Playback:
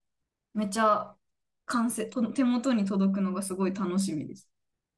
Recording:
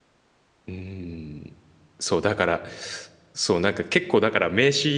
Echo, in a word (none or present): none